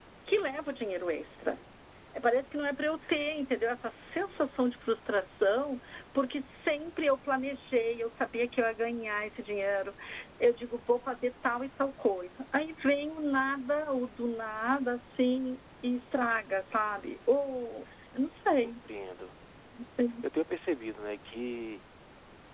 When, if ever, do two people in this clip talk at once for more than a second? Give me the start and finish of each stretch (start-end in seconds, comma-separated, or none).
none